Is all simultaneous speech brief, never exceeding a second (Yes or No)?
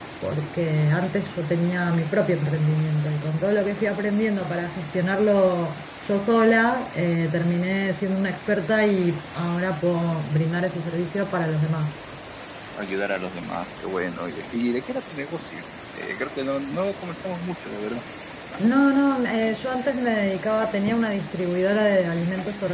Yes